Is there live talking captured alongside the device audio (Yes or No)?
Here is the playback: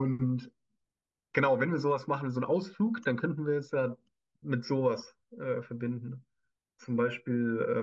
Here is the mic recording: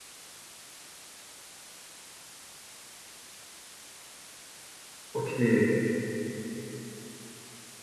Yes